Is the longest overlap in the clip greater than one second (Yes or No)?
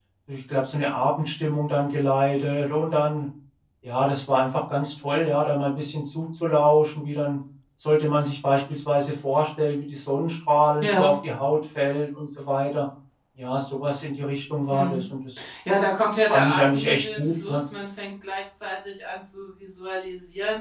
Yes